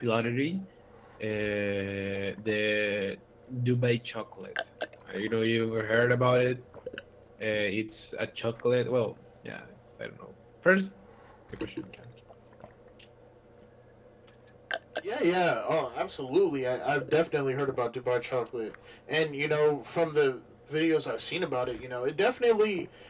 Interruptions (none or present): none